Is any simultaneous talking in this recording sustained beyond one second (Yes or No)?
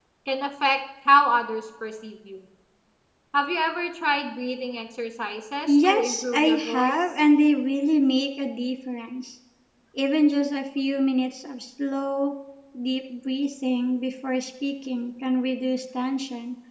Yes